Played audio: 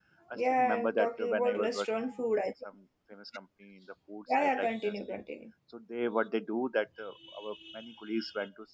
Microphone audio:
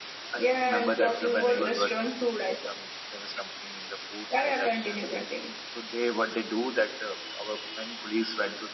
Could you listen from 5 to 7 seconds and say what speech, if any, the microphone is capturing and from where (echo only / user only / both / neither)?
echo only